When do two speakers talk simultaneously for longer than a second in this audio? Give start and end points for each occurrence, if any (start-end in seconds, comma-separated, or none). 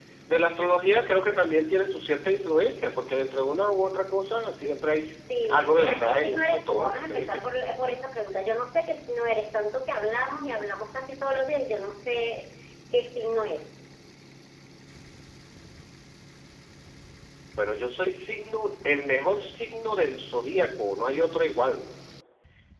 5.4-7.4